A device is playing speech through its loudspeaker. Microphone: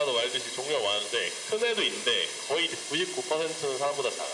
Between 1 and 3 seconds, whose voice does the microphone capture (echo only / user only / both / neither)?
echo only